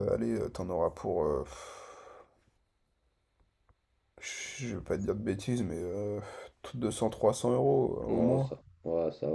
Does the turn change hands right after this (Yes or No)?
Yes